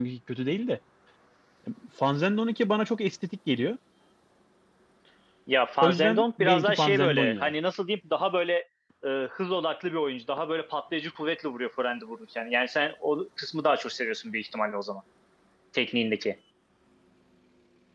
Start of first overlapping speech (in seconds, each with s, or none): 5.8 s